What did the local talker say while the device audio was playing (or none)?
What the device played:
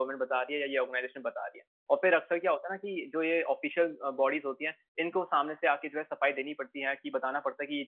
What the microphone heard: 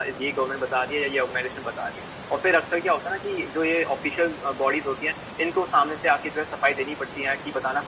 none